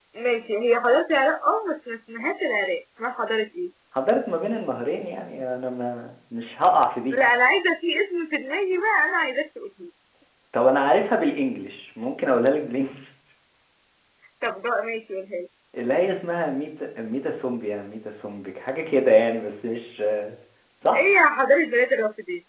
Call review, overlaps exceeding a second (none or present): none